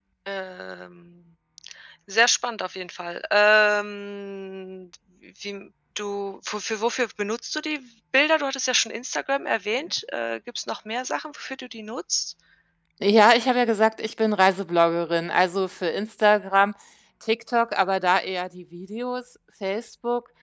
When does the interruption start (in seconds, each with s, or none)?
none